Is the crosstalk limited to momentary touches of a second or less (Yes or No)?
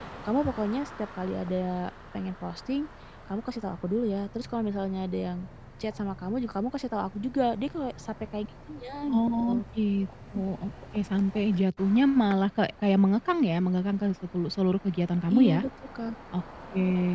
Yes